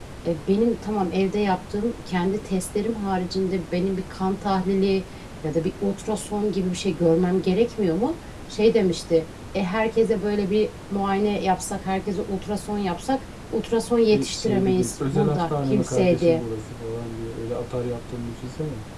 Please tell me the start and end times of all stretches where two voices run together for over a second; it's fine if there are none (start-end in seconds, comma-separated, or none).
14.1-16.4